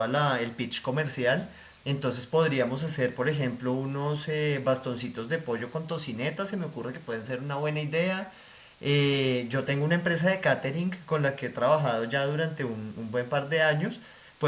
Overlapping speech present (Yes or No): No